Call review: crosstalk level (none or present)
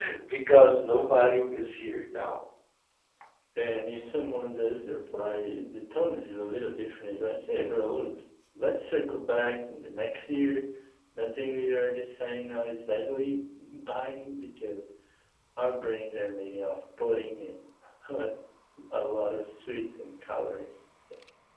none